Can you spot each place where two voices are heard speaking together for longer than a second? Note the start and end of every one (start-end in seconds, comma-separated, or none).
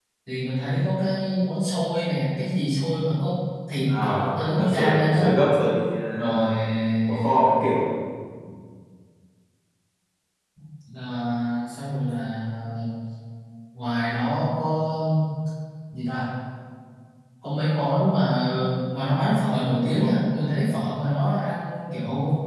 4.0-5.3